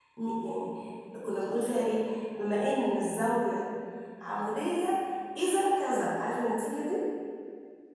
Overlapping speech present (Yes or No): No